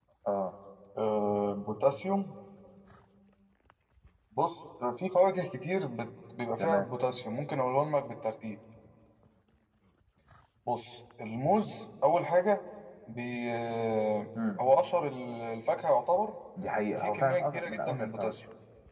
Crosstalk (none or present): present